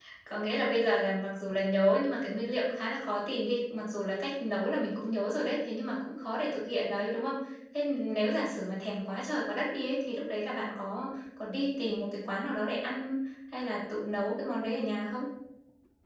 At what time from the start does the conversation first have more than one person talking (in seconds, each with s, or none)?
none